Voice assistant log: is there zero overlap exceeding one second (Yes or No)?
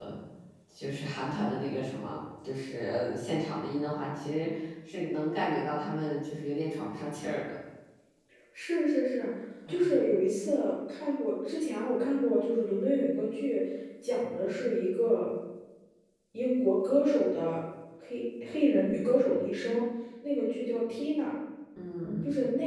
Yes